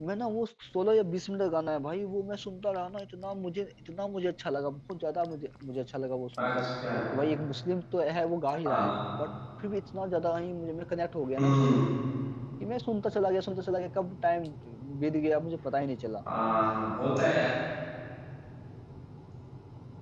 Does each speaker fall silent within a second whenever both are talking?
Yes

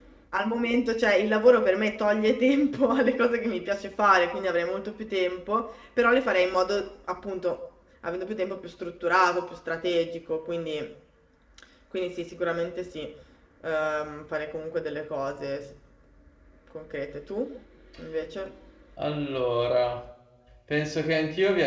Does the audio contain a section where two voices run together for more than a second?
No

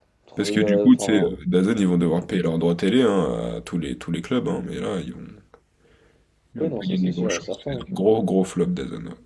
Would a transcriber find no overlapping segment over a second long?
No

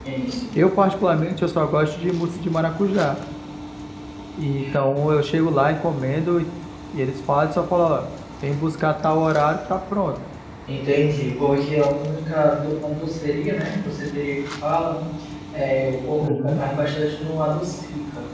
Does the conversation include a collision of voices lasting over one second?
No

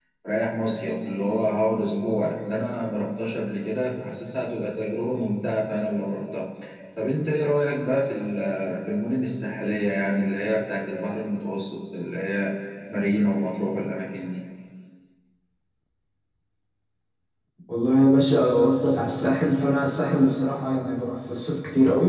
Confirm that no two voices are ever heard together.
Yes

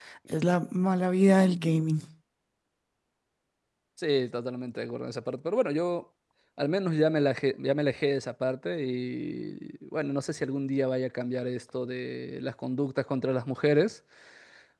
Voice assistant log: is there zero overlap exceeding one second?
Yes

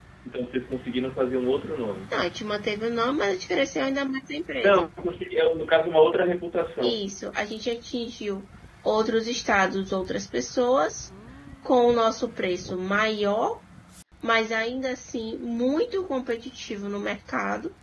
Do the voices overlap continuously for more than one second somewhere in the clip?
No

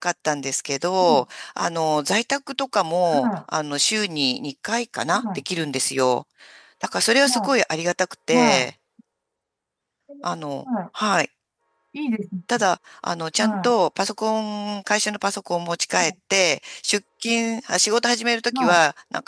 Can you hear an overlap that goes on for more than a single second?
No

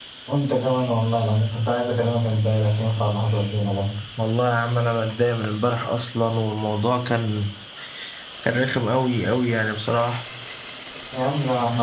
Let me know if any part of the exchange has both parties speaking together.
No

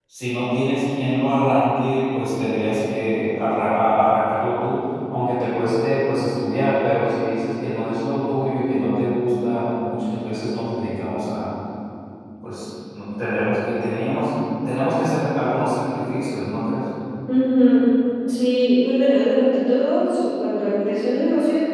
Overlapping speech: No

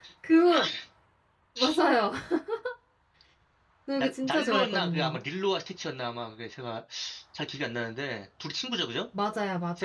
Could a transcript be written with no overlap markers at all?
No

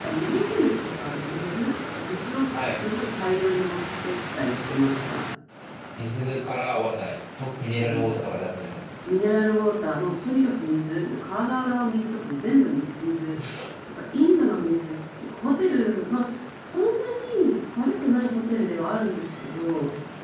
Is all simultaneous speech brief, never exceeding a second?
Yes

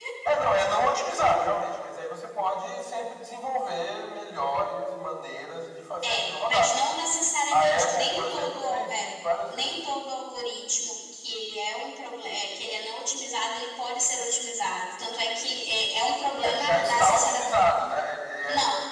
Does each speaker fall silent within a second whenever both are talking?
No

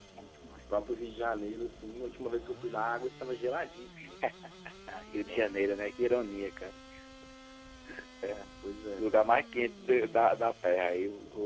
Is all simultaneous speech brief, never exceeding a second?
Yes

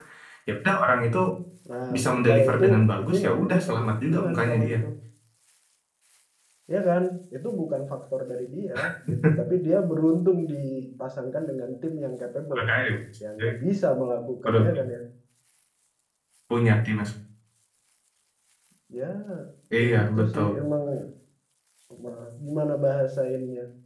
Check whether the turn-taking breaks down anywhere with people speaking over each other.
Yes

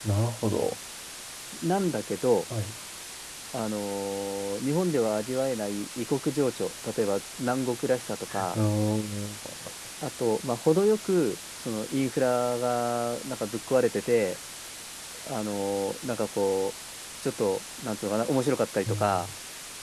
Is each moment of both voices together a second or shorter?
Yes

